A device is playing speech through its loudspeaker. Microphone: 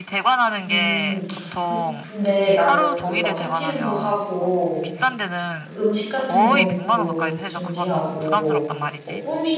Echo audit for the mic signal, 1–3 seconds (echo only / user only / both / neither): both